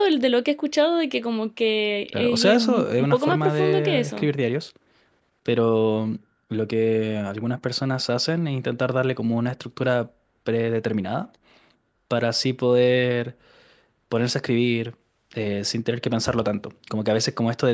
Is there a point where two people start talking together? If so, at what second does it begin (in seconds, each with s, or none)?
2.1 s